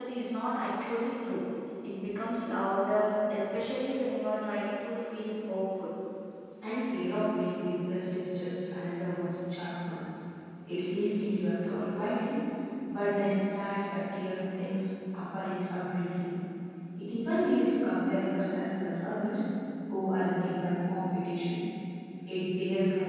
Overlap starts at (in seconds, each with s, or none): none